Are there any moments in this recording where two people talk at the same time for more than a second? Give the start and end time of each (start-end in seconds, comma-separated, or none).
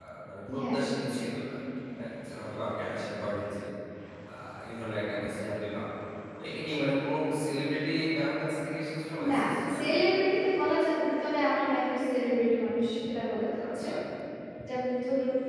none